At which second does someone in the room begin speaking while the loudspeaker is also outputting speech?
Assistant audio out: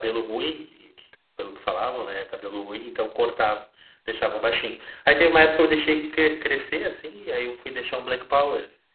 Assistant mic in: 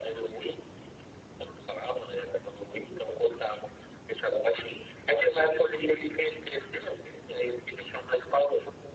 none

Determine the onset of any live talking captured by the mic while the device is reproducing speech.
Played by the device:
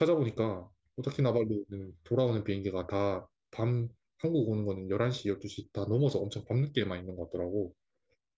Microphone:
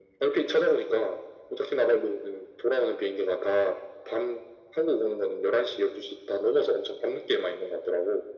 none

